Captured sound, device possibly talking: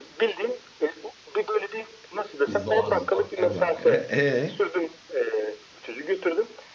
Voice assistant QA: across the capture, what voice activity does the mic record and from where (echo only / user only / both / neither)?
both